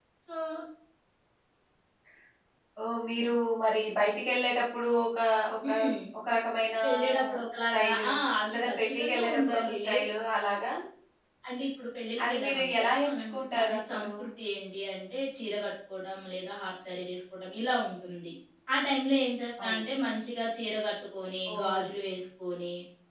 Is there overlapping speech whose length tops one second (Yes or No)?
Yes